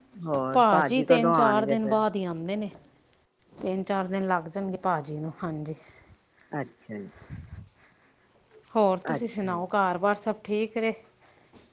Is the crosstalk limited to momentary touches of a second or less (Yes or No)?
No